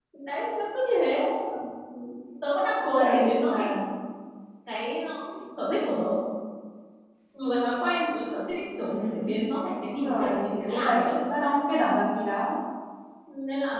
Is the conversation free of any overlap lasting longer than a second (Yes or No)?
No